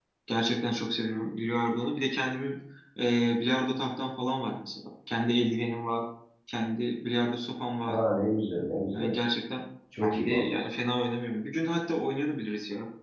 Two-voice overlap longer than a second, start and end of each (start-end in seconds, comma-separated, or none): none